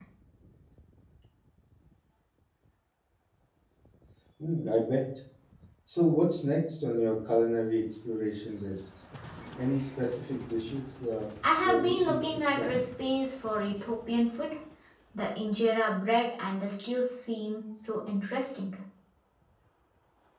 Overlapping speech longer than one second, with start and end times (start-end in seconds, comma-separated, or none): 11.6-12.8